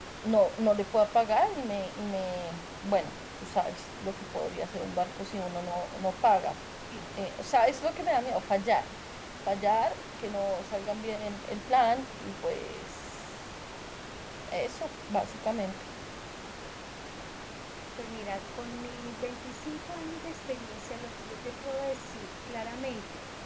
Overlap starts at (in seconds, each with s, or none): none